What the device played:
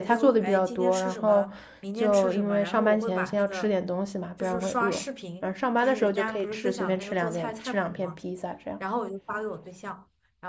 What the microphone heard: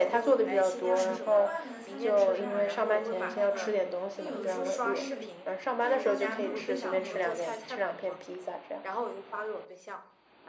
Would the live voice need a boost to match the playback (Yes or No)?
Yes